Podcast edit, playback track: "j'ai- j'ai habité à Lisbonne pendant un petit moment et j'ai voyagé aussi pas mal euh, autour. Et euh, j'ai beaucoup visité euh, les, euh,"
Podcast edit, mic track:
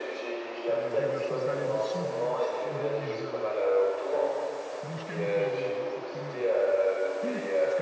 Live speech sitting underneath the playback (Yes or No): Yes